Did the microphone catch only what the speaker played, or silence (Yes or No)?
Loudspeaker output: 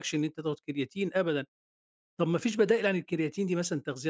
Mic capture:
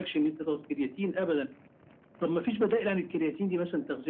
Yes